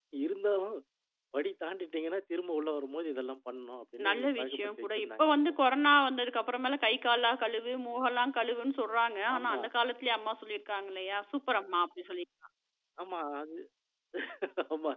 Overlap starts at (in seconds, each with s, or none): 4.1 s